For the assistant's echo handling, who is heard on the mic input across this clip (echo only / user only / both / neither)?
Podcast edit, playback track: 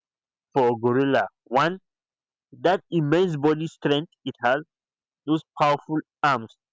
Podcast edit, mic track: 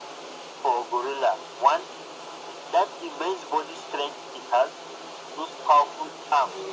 echo only